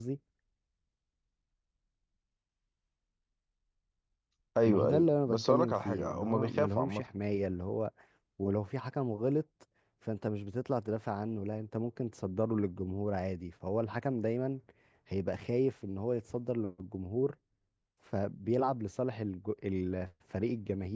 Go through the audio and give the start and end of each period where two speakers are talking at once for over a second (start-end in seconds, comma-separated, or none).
4.6-7.0